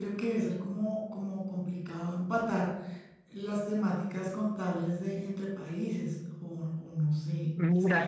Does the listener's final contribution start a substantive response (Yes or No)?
Yes